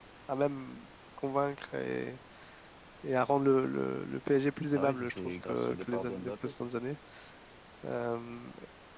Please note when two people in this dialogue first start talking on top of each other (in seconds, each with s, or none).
4.7 s